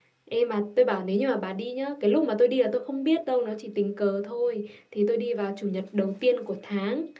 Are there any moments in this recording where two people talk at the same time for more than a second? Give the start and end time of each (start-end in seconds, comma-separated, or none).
none